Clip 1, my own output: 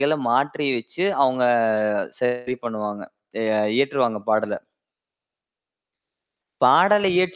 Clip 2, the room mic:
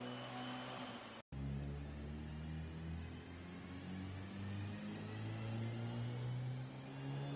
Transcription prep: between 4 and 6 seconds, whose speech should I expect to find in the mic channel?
neither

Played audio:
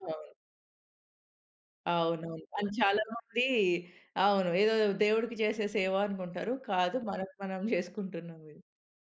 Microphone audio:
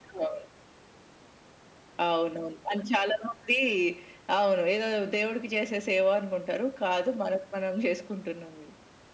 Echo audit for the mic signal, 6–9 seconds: echo only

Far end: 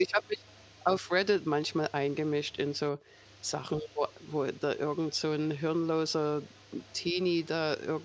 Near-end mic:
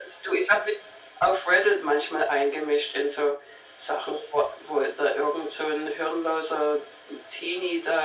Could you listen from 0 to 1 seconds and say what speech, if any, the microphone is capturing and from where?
echo only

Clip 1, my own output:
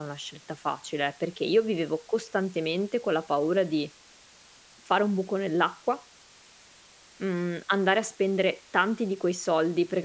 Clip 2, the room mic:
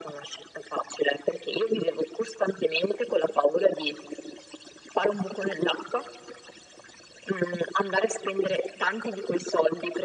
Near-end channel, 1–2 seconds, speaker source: echo only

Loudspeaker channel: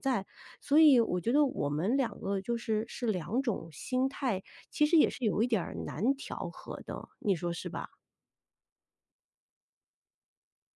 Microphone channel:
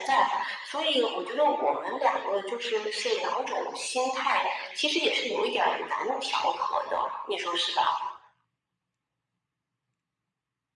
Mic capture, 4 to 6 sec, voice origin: echo only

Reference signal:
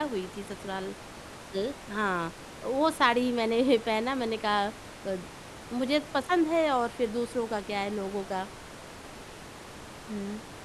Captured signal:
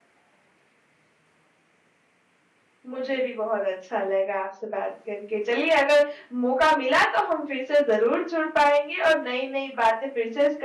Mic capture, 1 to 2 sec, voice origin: neither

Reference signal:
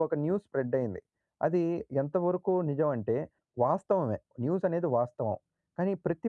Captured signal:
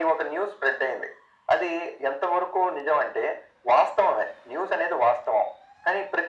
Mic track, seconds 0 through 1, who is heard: echo only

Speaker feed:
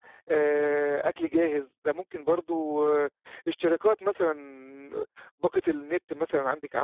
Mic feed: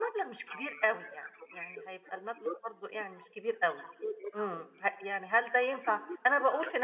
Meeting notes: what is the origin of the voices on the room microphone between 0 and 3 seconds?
both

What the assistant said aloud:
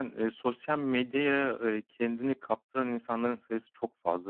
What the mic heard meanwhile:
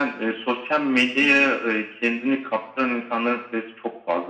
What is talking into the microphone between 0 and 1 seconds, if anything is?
echo only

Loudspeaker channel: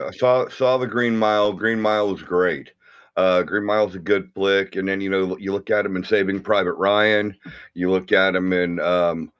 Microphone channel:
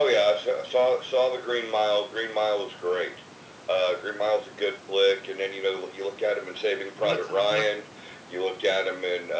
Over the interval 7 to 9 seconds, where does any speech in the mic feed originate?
both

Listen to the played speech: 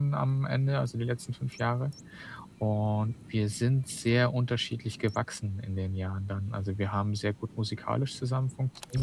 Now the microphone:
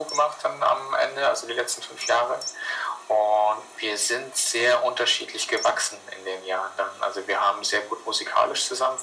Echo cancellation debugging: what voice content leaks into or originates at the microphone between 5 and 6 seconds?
echo only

